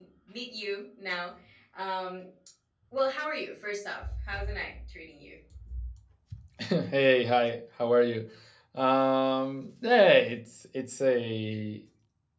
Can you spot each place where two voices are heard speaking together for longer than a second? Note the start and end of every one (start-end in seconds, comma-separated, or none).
none